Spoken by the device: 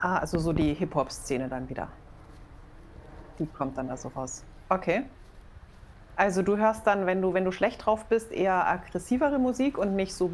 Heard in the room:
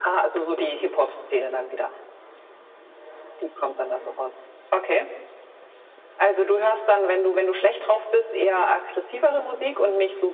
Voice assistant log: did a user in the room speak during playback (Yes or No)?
No